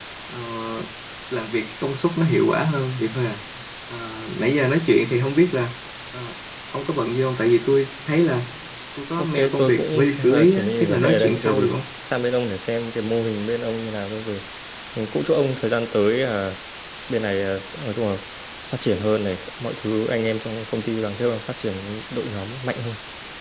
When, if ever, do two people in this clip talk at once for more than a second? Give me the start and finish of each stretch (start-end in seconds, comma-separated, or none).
9.2-11.7